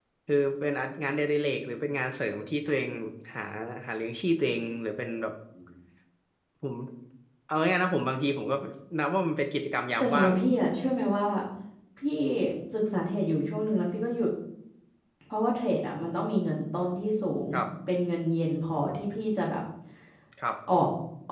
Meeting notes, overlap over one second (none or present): none